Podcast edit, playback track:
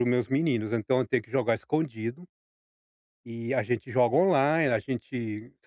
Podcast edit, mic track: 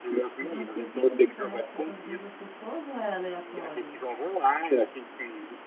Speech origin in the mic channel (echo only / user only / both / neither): both